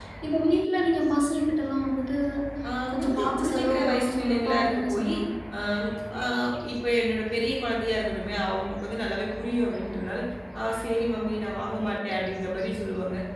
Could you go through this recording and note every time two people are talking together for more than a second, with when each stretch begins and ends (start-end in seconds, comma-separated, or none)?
3.0-5.1